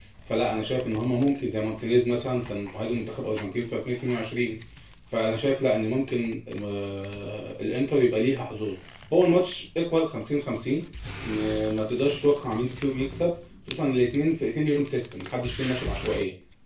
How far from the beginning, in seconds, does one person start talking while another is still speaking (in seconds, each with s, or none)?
none